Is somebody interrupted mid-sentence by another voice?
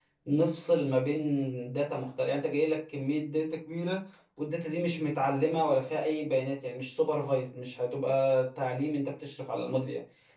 No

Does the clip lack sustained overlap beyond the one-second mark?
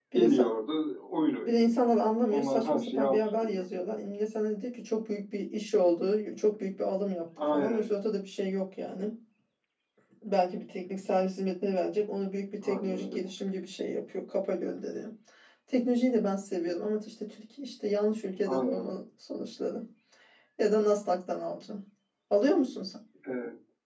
No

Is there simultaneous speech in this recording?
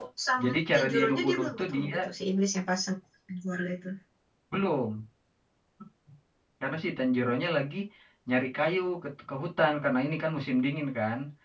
Yes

